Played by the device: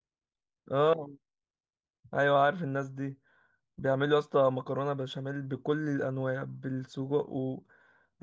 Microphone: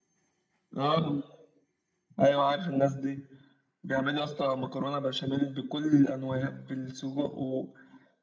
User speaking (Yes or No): No